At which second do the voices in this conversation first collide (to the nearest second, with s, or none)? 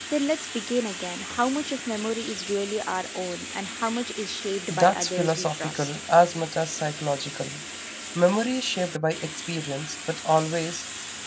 5 s